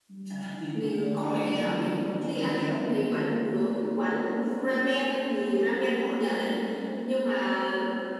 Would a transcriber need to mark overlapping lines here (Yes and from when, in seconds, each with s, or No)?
Yes, from 0.7 s